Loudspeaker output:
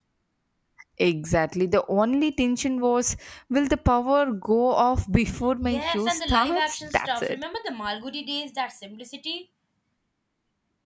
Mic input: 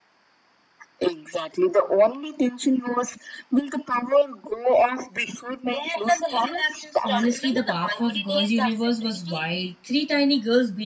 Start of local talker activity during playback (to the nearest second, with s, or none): 7 s